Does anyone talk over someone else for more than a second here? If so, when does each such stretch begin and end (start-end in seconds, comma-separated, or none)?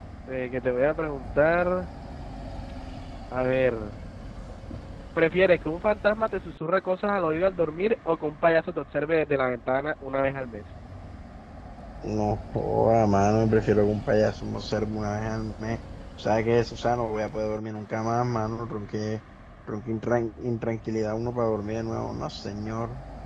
none